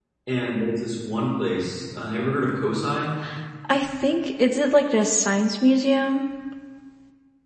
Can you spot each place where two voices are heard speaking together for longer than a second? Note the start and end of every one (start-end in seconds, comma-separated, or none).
none